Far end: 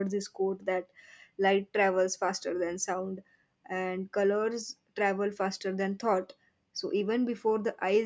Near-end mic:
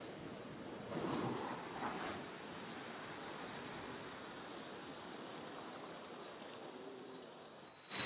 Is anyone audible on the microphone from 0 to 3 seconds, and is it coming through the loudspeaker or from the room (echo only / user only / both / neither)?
neither